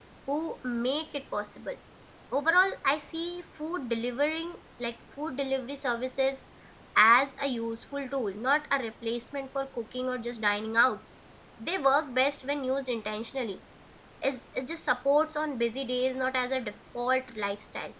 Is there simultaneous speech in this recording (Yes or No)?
No